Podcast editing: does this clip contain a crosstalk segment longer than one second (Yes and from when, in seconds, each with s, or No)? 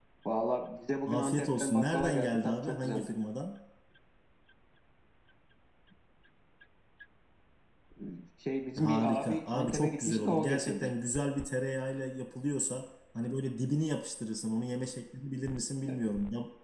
Yes, from 1.1 s